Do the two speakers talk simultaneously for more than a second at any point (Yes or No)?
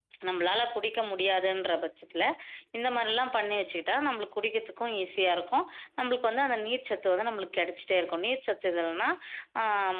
No